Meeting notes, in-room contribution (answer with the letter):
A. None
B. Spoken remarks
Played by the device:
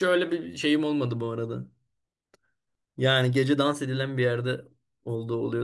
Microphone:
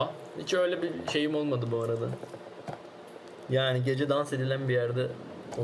A